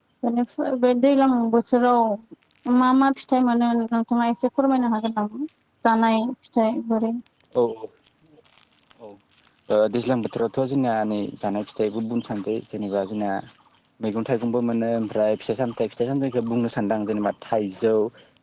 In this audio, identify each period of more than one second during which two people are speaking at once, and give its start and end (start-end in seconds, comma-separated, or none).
none